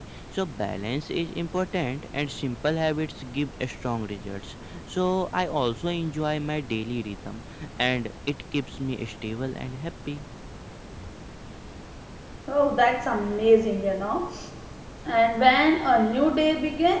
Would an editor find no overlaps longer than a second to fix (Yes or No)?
Yes